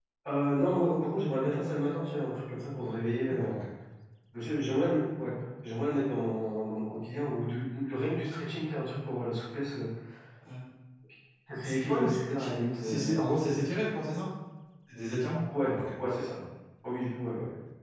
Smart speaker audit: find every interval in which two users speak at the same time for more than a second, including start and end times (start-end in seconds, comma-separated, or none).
11.6-13.1